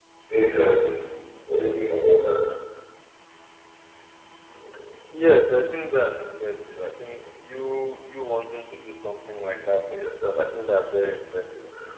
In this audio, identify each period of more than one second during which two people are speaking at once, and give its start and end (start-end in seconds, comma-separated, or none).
none